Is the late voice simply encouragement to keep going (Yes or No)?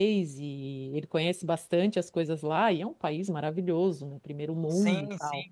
No